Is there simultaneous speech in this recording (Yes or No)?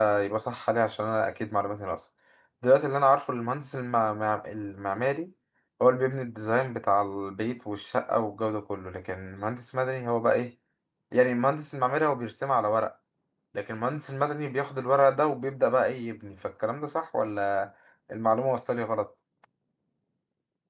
No